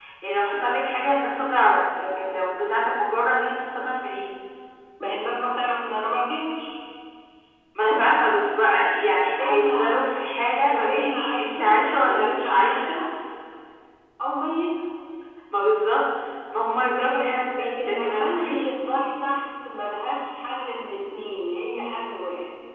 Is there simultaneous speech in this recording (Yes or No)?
Yes